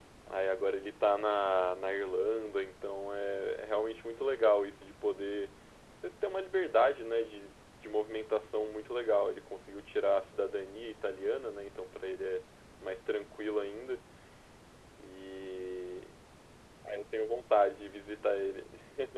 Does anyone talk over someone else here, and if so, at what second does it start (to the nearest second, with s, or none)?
none